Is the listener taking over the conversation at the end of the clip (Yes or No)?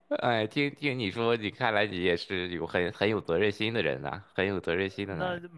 Yes